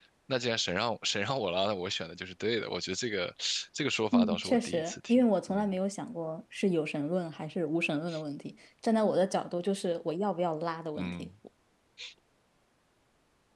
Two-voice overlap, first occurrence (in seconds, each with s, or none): 4.1 s